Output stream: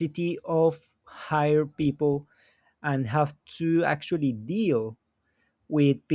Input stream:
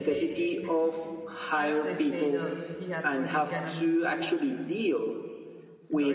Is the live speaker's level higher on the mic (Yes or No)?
No